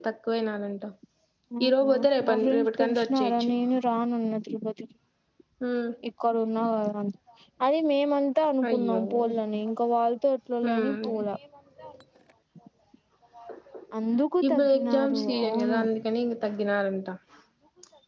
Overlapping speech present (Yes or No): Yes